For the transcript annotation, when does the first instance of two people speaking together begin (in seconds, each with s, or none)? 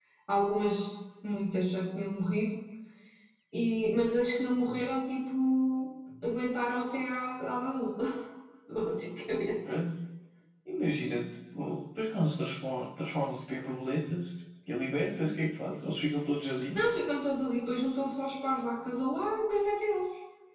none